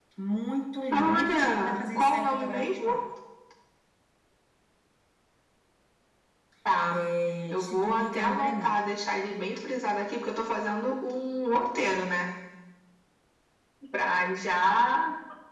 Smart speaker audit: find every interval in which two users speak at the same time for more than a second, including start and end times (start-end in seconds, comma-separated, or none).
0.9-3.0, 7.5-8.8